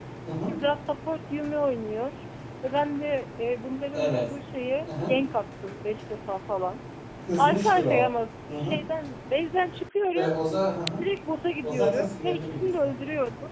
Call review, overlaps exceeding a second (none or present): present